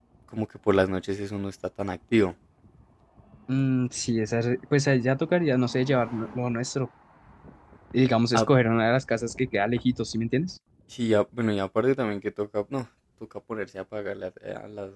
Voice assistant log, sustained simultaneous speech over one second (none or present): none